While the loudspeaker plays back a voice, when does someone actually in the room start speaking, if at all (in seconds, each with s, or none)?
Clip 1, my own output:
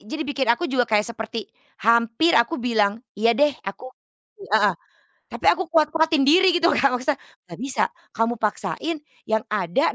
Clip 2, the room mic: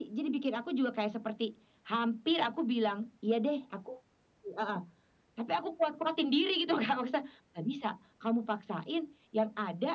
none